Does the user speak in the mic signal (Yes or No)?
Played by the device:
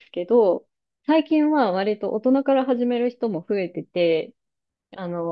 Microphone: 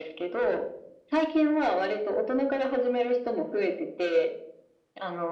No